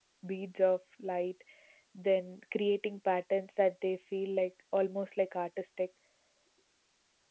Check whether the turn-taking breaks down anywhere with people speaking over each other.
No

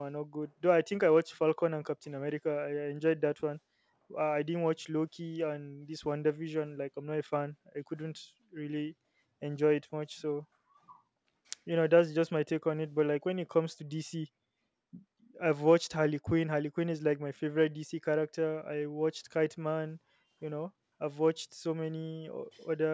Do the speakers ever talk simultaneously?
No

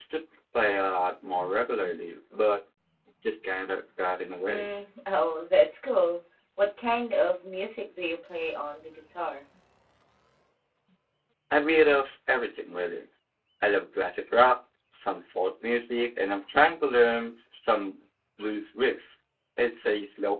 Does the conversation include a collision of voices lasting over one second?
No

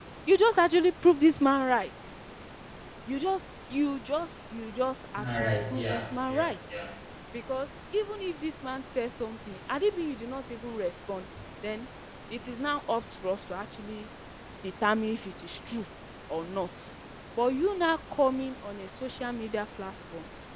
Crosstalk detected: Yes, from 5.2 s

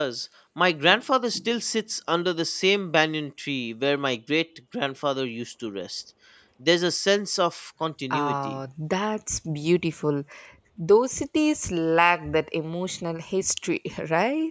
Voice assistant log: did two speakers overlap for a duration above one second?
No

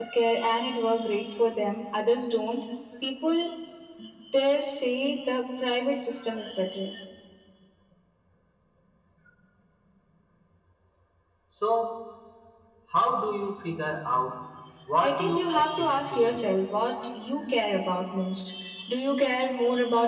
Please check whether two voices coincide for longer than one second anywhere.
Yes, from 15.0 s

